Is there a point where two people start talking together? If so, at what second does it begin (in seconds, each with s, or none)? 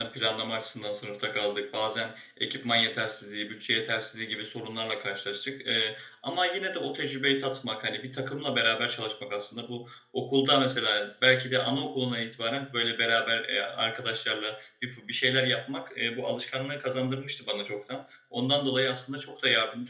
none